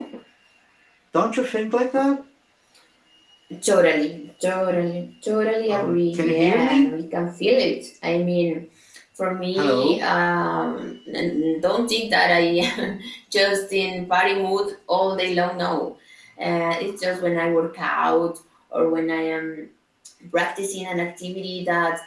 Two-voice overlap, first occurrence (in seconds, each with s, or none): 5.7 s